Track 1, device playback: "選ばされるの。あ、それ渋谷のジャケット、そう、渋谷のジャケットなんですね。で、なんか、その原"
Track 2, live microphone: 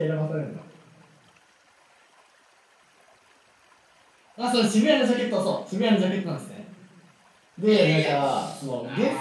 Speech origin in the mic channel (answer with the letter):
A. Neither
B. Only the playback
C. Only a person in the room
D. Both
D